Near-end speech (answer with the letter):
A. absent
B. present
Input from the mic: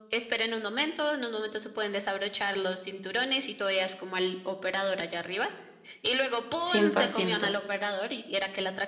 B